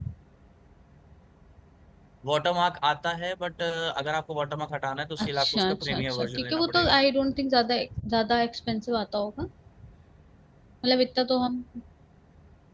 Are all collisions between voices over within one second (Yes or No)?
No